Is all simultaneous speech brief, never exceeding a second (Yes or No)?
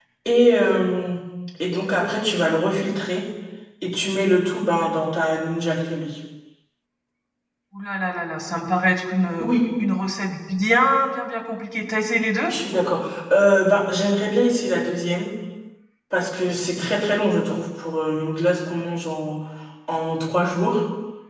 Yes